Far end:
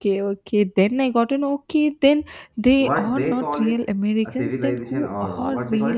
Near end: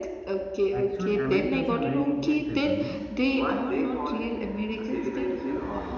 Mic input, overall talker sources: both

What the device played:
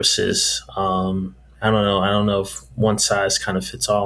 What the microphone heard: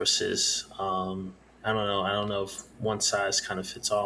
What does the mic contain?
echo only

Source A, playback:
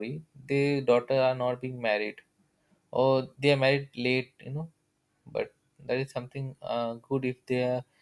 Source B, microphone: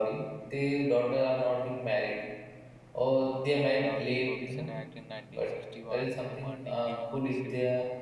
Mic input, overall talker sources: both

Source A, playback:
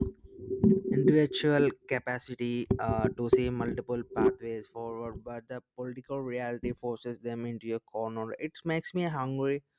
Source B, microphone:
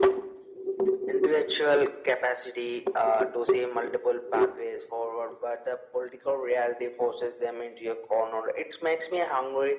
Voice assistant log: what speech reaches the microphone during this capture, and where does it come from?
echo only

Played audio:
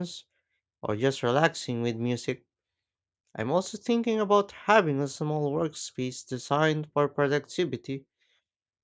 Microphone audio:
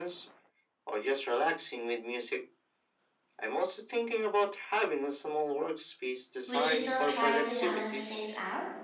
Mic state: both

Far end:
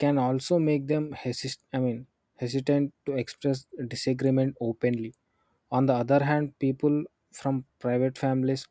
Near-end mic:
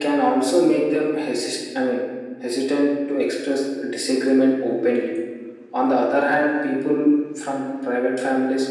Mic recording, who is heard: echo only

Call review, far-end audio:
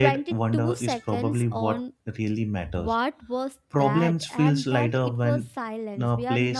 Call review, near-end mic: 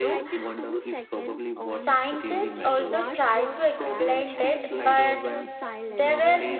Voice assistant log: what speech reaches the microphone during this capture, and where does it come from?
both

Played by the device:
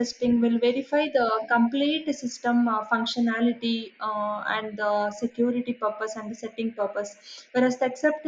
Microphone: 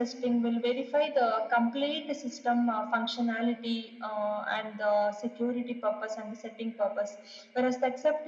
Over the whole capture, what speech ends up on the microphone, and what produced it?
echo only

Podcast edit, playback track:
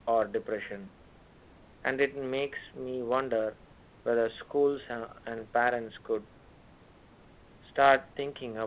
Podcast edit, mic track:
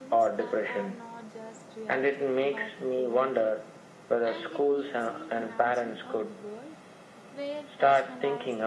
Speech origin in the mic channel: both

